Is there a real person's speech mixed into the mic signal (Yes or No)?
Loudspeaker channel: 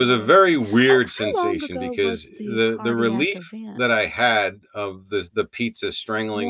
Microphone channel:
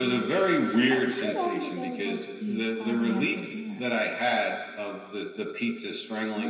No